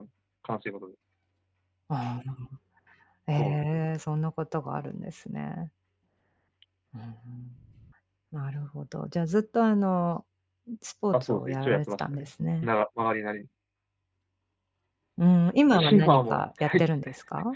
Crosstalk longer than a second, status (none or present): present